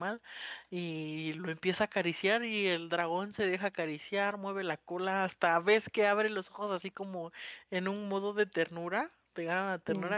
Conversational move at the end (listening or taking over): listening